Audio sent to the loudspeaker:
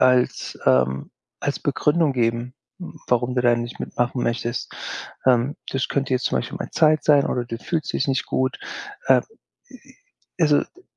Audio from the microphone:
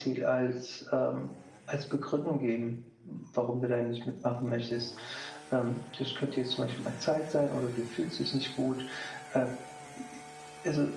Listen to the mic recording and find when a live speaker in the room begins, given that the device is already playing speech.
none

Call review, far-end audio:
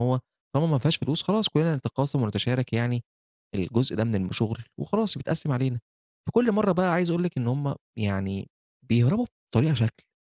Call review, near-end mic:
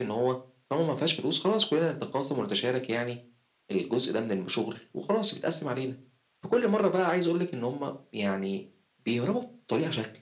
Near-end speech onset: none

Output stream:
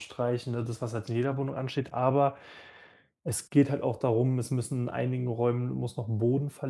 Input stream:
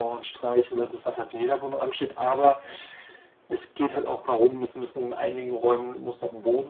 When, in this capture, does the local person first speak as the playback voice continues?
none

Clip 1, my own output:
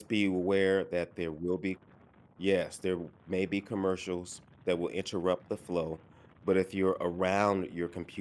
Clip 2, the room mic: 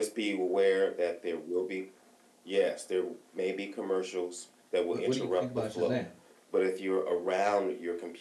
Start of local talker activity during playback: 4.9 s

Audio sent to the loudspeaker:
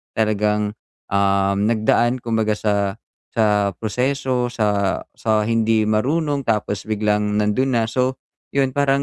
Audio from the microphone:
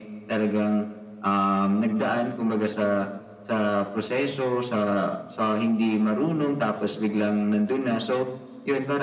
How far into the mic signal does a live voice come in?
none

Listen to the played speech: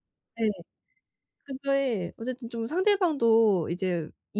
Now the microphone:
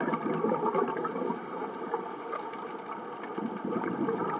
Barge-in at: none

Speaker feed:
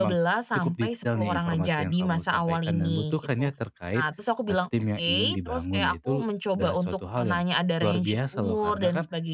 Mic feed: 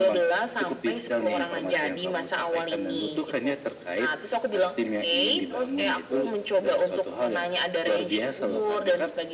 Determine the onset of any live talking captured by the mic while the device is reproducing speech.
none

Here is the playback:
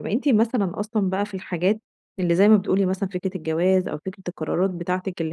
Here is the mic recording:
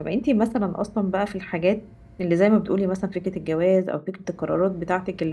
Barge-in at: none

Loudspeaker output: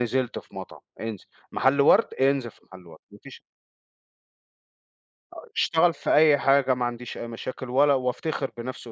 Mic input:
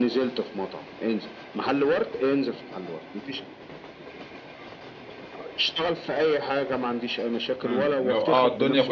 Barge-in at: 7.7 s

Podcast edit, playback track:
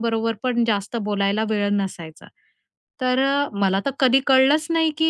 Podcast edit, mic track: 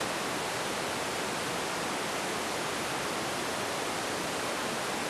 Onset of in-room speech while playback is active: none

